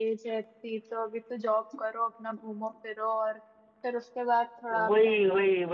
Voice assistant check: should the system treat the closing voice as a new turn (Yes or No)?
Yes